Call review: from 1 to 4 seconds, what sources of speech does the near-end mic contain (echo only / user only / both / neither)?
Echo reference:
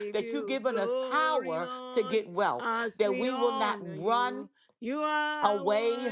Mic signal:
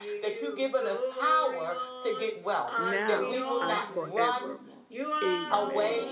both